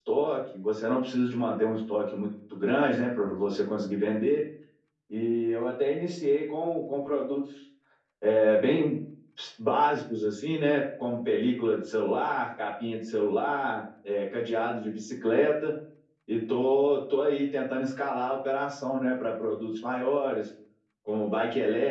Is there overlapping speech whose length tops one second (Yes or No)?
No